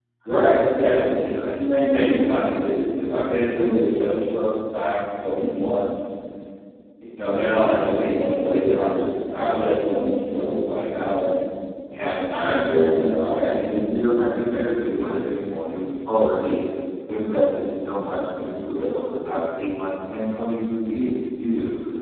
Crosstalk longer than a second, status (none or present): none